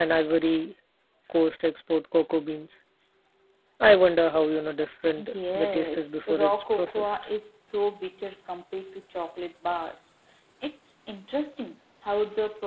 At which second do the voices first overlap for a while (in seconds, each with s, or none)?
5.2 s